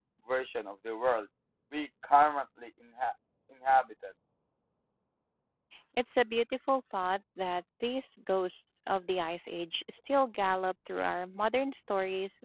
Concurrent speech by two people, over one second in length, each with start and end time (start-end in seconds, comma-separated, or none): none